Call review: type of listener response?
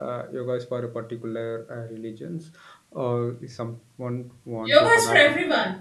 taking over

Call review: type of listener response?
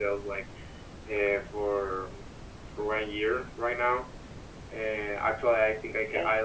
listening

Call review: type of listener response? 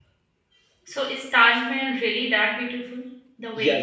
taking over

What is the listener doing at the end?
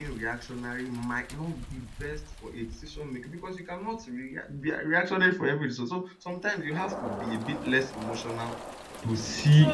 taking over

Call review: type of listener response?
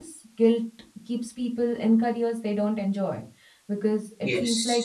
taking over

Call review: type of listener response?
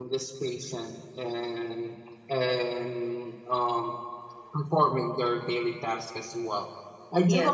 listening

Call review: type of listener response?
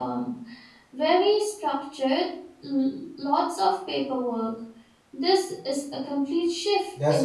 taking over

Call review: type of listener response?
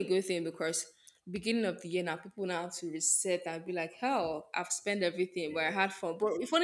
listening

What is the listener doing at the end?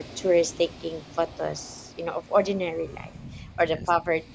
listening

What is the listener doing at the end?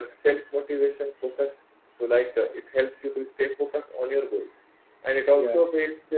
listening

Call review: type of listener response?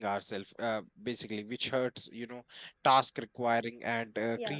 listening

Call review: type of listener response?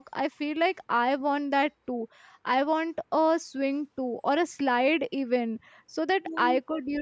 listening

